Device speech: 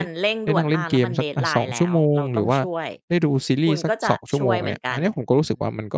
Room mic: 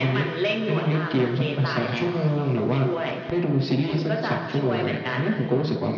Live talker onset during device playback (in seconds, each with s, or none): none